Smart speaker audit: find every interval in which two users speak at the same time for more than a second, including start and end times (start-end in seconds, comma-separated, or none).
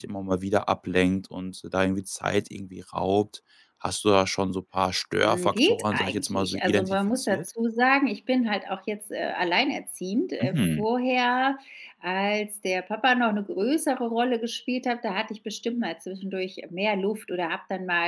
5.2-7.4